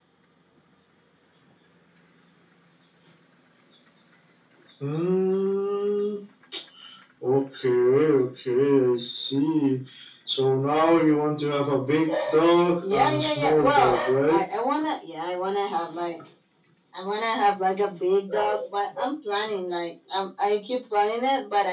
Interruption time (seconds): 13 s

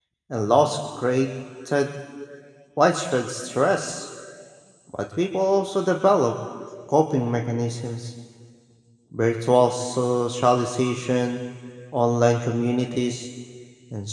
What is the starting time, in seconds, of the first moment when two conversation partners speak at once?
none

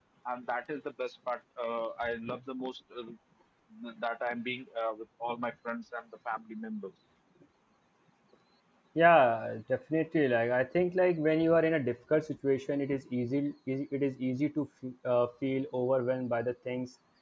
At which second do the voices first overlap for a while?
none

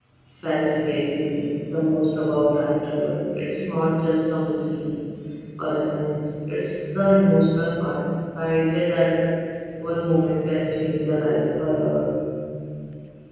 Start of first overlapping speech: none

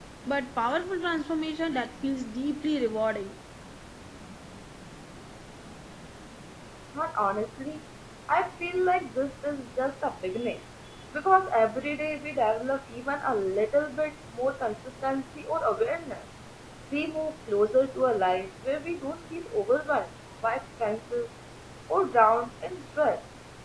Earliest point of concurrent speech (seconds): none

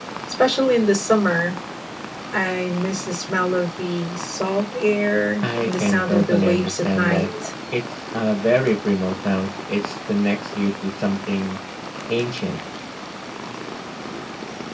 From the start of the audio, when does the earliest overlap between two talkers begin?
5 s

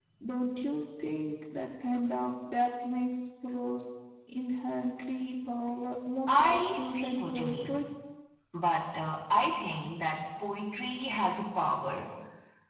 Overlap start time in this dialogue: 6 s

